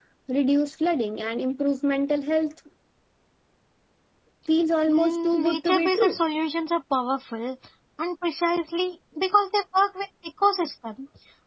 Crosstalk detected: Yes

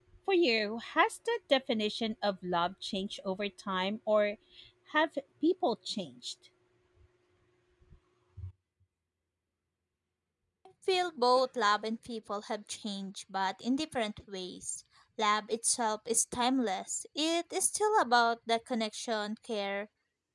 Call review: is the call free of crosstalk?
Yes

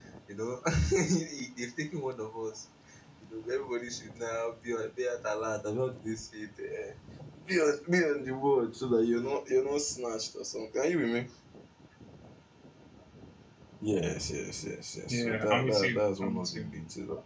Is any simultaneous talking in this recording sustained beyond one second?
Yes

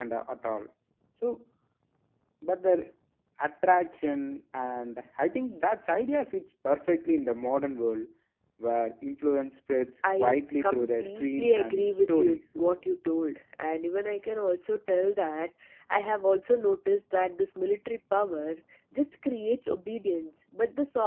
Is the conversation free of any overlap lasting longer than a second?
No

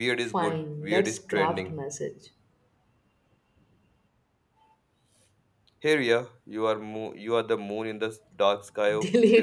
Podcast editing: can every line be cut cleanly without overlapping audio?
No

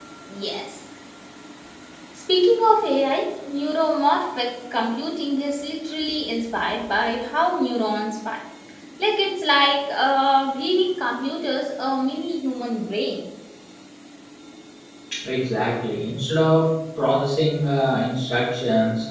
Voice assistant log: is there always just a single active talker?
Yes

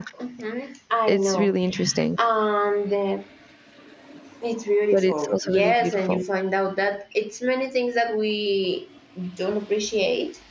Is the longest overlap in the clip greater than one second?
Yes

